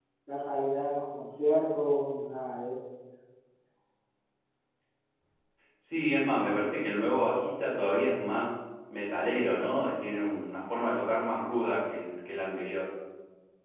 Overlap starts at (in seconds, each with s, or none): none